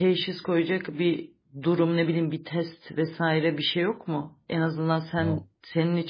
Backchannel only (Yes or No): Yes